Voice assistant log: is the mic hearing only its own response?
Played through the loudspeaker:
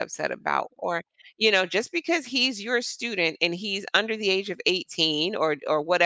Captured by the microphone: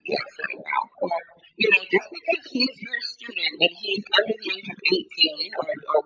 Yes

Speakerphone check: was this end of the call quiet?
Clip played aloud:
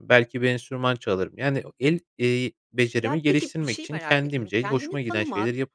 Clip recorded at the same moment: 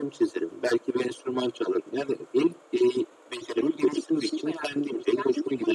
Yes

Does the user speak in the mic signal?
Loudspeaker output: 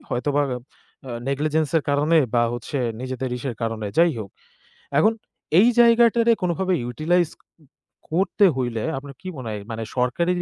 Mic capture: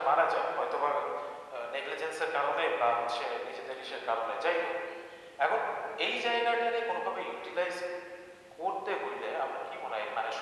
No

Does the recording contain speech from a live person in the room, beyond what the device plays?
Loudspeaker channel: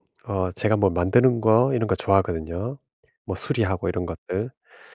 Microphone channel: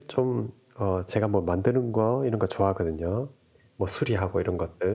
No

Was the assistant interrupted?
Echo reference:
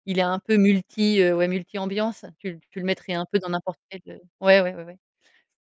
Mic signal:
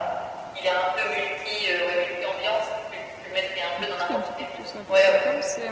Yes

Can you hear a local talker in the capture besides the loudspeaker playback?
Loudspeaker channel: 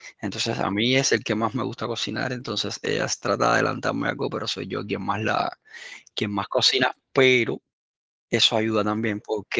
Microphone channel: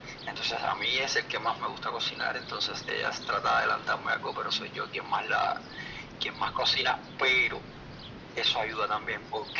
No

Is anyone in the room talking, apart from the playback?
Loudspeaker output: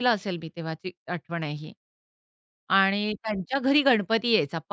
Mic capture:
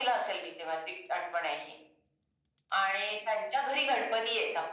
No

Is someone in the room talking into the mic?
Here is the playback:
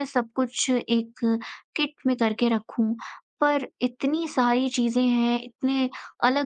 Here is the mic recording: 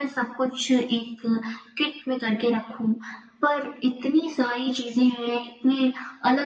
No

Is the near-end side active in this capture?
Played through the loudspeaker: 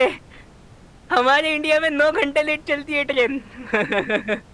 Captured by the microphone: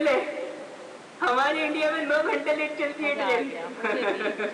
Yes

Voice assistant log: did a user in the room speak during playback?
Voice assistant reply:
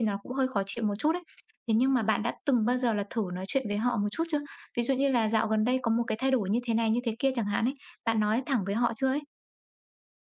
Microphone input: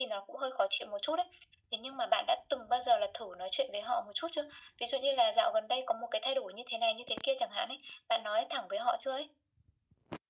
No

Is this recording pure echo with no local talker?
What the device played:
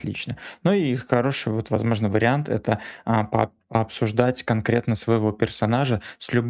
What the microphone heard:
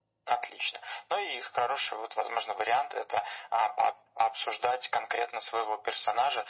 Yes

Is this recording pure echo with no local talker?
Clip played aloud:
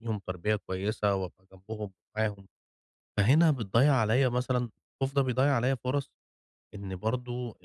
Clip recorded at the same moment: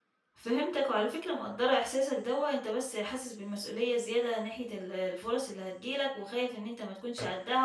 No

